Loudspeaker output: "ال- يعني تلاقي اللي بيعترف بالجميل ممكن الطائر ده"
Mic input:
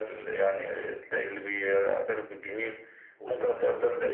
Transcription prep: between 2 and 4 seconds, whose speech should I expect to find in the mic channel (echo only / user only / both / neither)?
both